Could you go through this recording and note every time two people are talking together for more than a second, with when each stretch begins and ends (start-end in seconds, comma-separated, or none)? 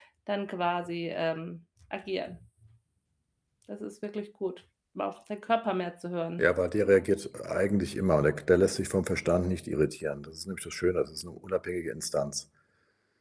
none